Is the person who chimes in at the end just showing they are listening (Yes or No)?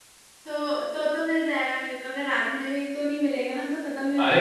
No